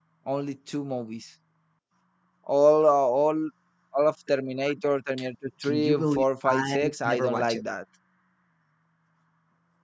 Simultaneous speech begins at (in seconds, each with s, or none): 5.6 s